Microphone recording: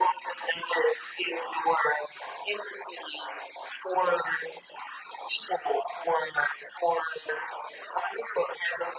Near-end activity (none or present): none